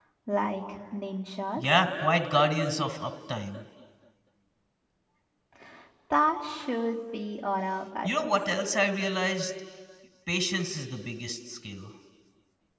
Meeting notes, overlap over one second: none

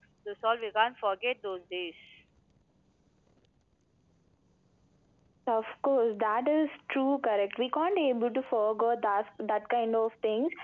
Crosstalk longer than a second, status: none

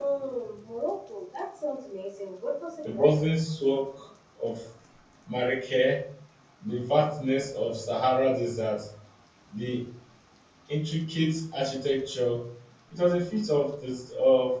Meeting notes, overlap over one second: none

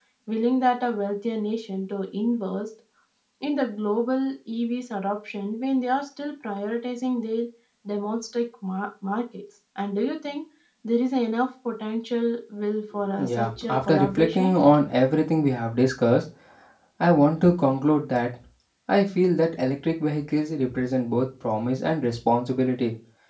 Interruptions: present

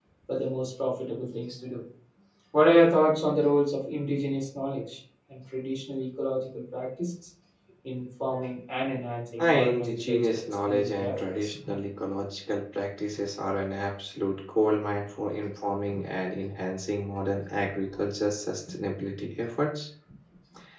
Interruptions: present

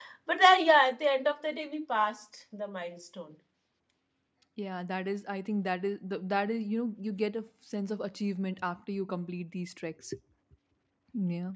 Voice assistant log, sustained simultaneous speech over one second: none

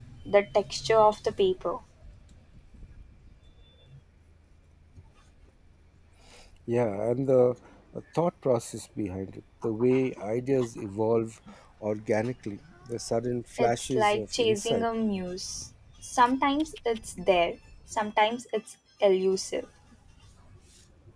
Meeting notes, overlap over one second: present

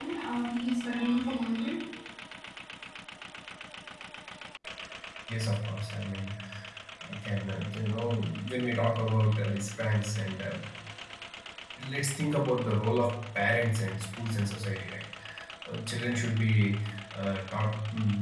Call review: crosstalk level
none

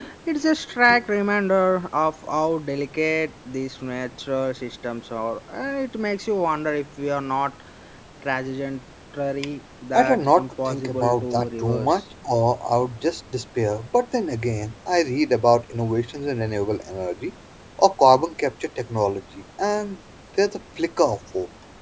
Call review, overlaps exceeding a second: present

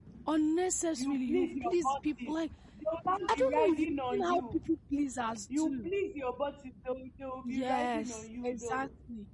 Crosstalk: present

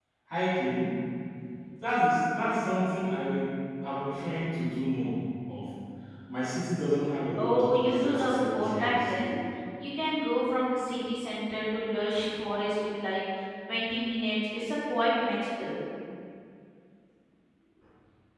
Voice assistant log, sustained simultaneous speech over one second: present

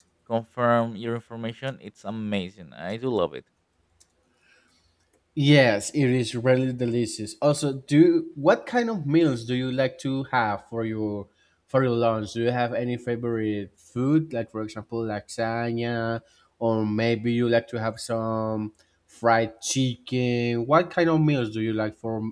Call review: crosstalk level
none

